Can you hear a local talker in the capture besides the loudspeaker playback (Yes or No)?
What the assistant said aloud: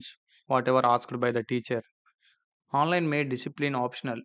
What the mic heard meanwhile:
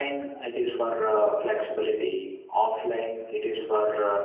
Yes